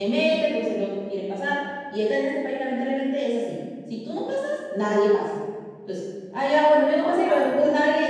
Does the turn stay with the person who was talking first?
Yes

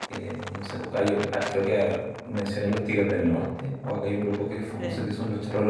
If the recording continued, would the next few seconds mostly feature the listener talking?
No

